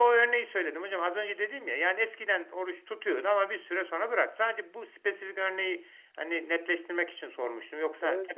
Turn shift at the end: Yes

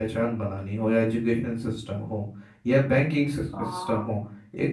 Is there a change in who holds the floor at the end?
No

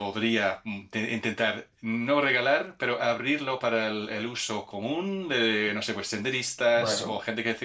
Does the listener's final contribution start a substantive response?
No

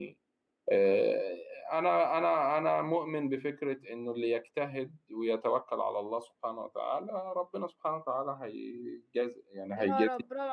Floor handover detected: Yes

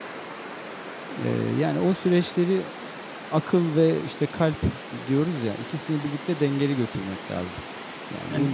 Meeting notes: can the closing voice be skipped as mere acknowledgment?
Yes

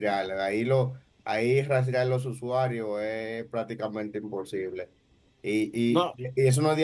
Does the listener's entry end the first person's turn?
No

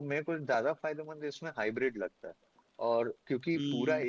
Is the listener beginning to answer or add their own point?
No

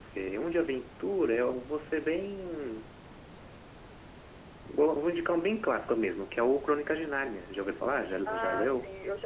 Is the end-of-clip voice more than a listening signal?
Yes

